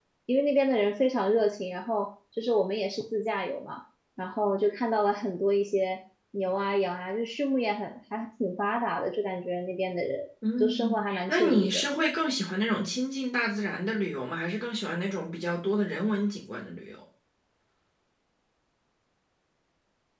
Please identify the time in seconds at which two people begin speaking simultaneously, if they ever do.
10.4 s

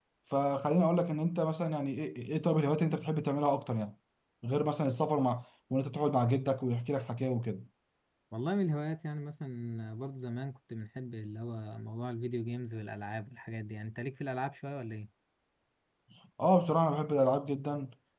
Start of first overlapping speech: none

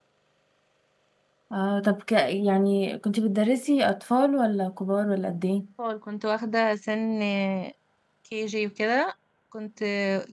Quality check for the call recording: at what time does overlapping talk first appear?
none

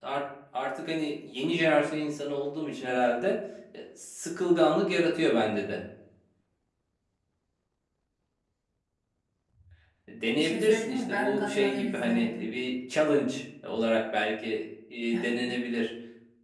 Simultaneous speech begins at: 10.4 s

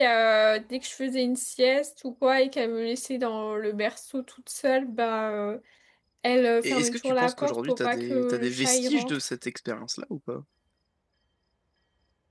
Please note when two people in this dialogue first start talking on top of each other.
6.6 s

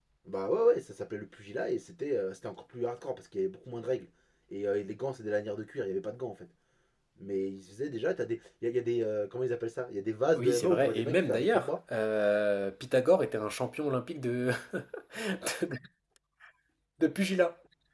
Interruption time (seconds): 10.4 s

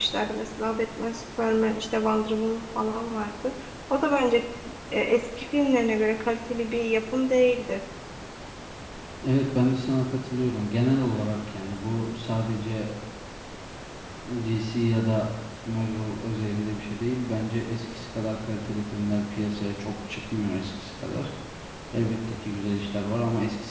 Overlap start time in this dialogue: none

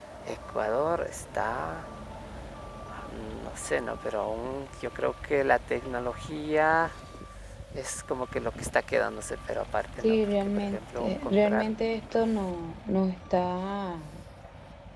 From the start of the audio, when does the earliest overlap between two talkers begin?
10.0 s

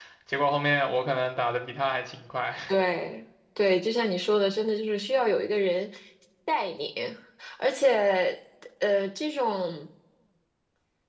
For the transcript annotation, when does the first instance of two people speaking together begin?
none

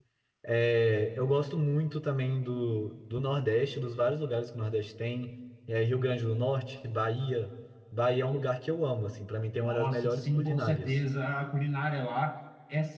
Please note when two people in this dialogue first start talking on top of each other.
9.6 s

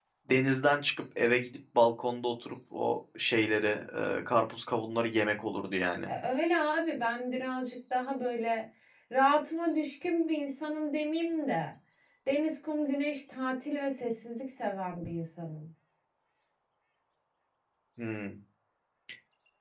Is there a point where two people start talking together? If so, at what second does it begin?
none

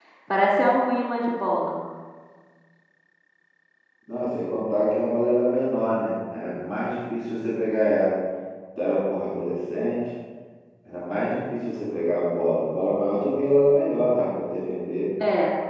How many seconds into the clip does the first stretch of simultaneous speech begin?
none

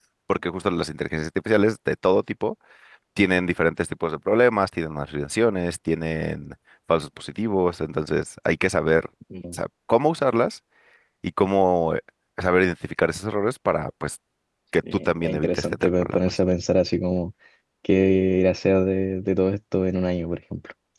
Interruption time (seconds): 15.1 s

